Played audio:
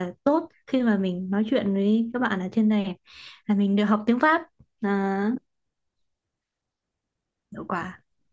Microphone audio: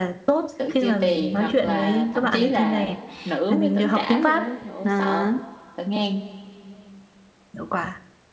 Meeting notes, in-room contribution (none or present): present